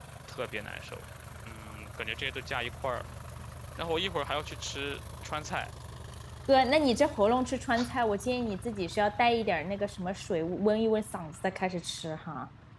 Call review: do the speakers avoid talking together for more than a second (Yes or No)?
Yes